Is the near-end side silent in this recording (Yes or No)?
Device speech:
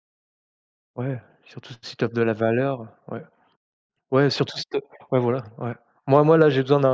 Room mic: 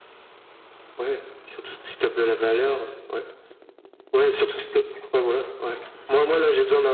Yes